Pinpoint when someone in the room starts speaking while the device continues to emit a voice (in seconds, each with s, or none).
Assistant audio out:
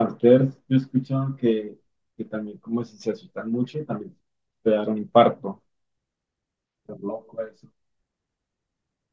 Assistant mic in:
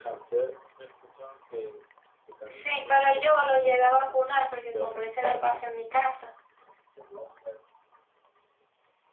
2.5 s